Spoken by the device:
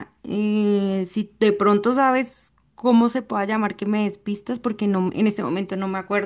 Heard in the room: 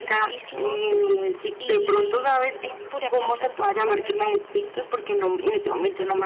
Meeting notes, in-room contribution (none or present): present